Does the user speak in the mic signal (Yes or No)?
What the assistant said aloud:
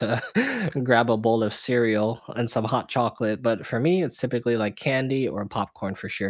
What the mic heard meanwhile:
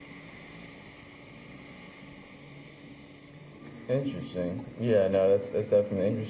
Yes